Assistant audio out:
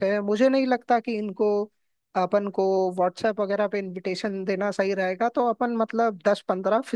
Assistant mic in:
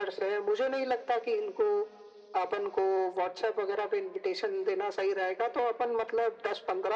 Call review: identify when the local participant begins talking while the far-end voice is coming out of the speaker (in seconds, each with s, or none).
none